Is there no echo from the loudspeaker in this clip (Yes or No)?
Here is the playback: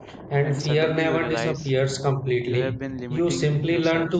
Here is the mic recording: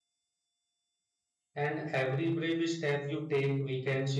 Yes